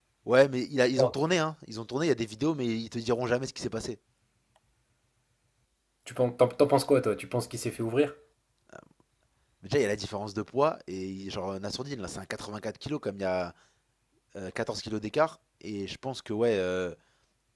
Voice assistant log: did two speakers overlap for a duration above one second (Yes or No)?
No